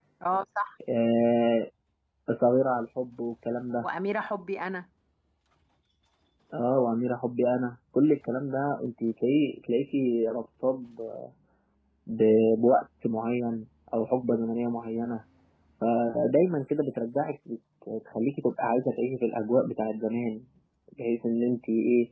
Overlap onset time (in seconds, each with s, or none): none